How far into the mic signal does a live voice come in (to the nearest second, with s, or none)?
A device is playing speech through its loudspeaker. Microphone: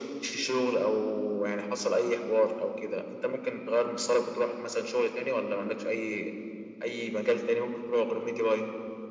none